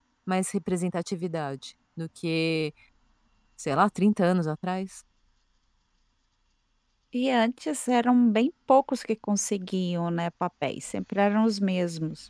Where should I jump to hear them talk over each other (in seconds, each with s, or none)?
none